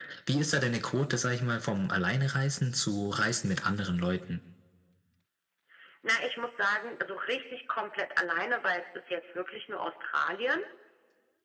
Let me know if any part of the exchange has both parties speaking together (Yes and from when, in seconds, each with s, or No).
No